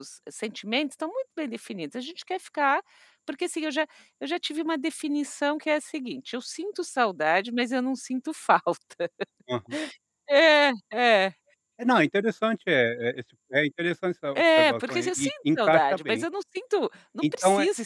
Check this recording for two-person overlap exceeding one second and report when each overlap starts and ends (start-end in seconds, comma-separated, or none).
14.4-16.2